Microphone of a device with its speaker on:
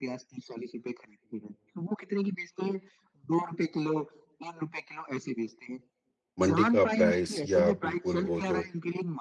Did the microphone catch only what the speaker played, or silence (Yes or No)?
No